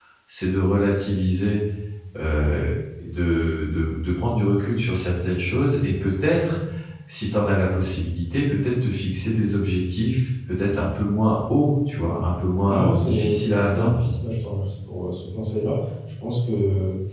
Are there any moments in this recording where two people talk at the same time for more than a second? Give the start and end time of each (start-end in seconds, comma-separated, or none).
12.7-14.1